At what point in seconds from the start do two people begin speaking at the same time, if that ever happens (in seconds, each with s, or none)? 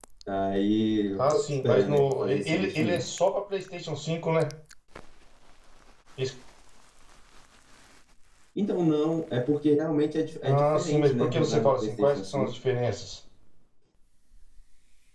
1.3 s